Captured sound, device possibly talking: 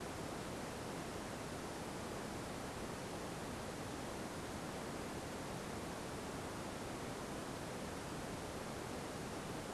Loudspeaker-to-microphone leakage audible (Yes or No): No